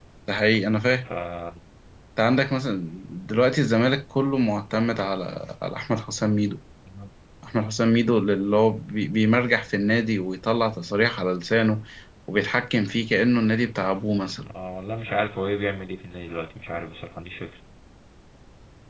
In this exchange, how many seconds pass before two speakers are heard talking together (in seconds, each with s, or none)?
none